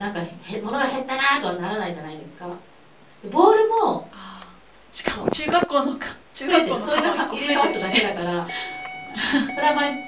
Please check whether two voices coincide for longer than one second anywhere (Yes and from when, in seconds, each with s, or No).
Yes, from 6.5 s